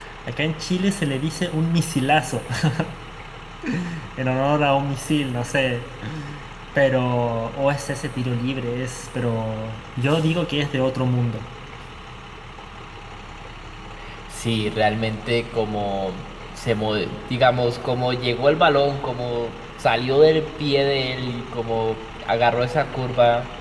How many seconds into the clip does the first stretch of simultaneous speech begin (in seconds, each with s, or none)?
none